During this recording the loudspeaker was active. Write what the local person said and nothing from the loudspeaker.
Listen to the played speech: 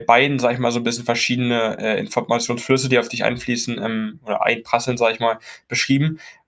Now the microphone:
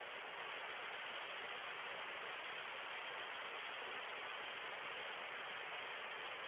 none

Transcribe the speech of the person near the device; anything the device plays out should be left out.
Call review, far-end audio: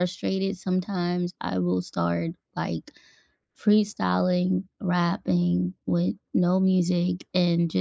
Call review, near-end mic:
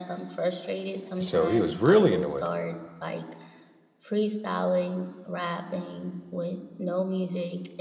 so he was really into it.

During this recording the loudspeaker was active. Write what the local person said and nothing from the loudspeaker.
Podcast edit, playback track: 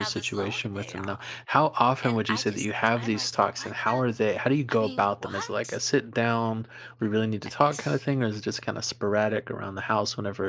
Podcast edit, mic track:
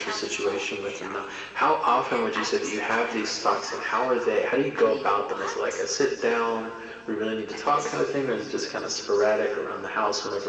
none

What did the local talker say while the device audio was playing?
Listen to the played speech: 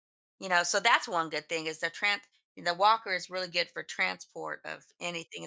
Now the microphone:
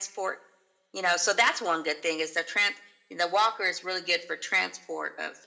none

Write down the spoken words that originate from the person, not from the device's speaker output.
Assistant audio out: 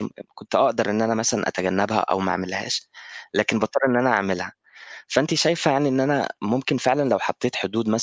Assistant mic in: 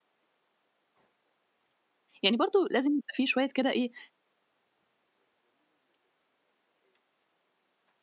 يعني برضه لازم يبقى في شوية كده إيه،

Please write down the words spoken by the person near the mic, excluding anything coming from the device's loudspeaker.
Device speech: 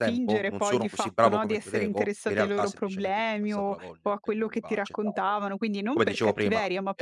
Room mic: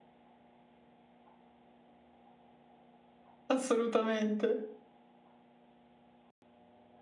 assolutamente.

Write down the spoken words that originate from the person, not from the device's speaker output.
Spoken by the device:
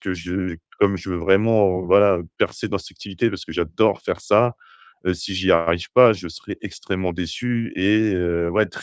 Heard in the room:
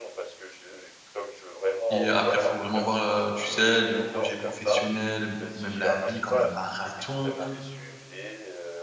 et après il faut vraiment voir, heu, tu sais, les projets professionnels, ou même la vie comme un marathon

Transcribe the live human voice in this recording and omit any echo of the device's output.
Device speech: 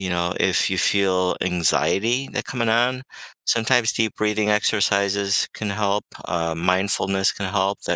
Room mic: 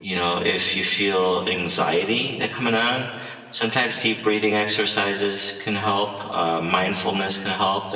none

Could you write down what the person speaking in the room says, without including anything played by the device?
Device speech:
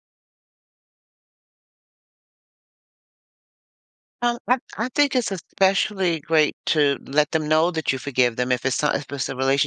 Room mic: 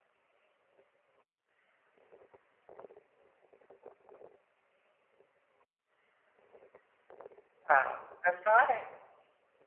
Ah, that's right.

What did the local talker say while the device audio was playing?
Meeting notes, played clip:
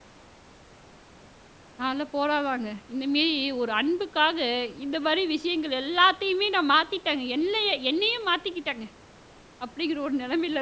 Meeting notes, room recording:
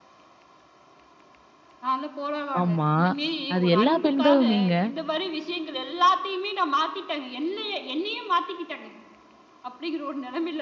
ஆமா. அது எல்லா பெண்களுமேங்க.

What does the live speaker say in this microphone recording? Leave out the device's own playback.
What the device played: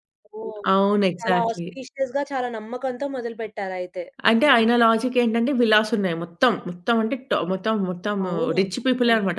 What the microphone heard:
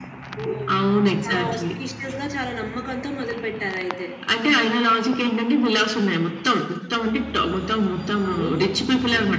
none

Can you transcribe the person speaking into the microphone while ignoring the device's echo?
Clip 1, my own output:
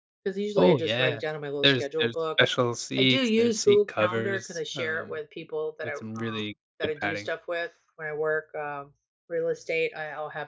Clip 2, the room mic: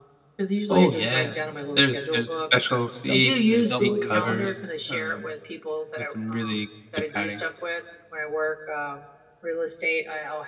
double double your walking.

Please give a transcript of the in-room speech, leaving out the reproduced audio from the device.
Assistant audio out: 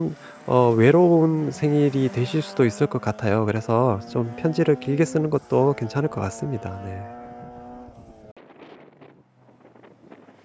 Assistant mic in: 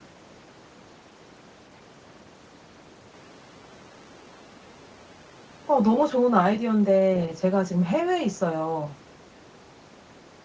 어 너무 좋은 아이디어인데 제가 지금 해외에 있어요.

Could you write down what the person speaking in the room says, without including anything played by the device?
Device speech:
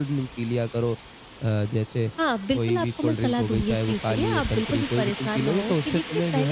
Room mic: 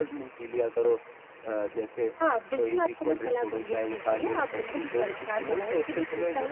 none

